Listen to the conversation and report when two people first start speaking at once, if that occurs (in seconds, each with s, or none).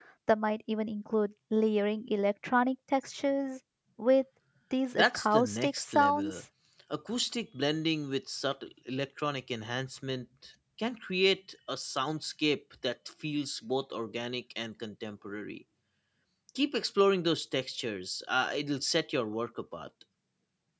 5.0 s